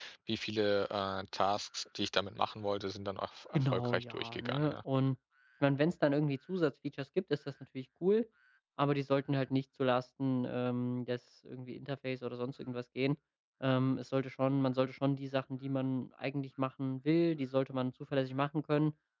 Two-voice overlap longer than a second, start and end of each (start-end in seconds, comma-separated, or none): 3.5-4.8